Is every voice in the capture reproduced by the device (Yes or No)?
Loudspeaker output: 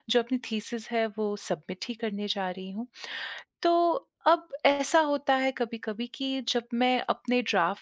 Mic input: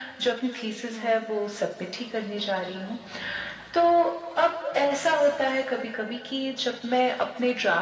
No